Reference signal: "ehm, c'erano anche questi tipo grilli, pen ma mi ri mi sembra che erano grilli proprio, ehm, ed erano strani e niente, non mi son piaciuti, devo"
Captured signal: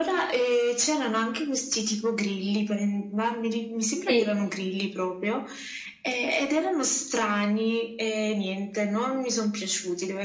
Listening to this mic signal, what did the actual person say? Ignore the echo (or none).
sì,